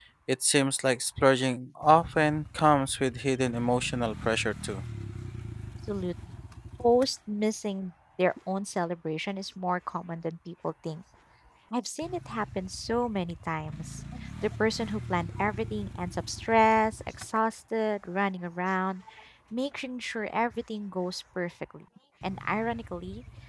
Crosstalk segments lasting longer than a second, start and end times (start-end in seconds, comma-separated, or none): none